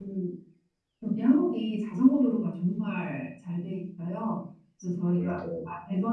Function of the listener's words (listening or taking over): listening